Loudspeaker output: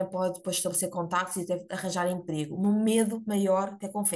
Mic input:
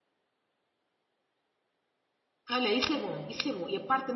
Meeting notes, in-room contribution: present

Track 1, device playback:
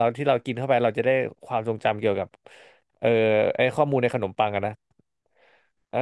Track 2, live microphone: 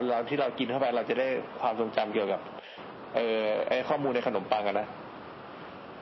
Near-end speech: none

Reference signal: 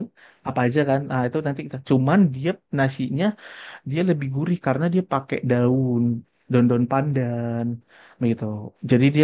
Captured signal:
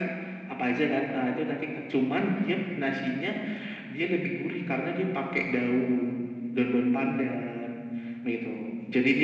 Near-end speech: none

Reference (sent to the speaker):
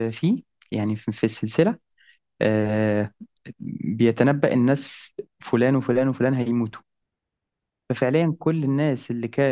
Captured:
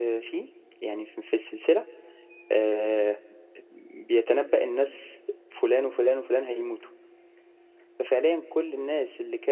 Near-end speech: none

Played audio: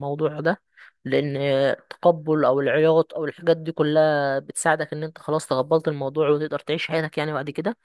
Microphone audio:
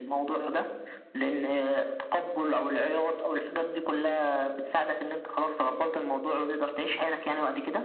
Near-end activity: none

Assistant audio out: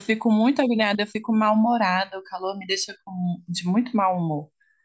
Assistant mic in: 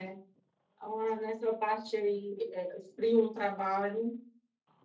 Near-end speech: present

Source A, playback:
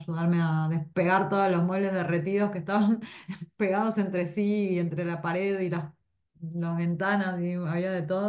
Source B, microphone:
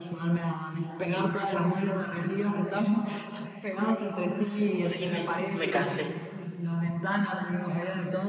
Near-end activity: present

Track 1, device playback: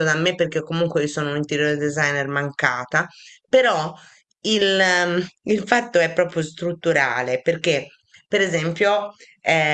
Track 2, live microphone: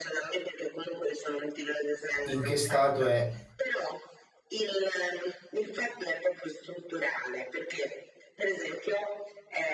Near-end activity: present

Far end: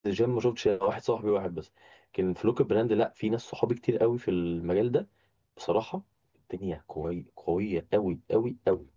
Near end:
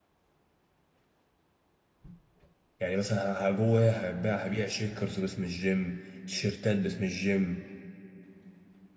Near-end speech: present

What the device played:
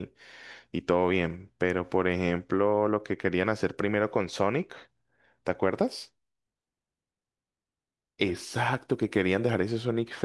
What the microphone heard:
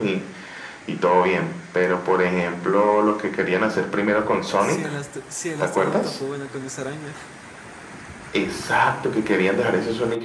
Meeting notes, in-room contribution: present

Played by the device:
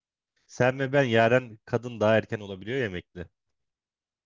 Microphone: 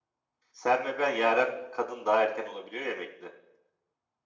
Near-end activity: none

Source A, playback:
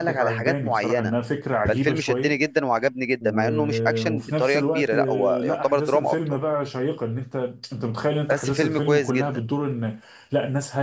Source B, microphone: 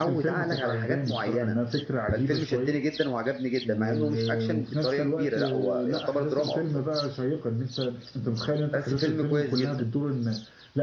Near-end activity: none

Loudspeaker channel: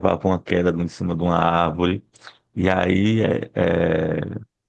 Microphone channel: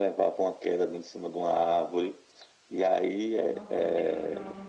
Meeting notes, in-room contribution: present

